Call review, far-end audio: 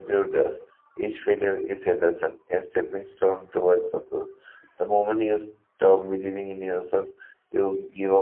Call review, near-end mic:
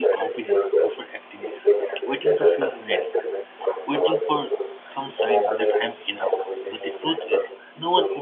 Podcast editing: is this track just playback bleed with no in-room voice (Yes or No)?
No